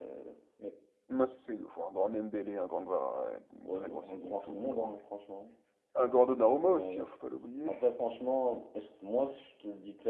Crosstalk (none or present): present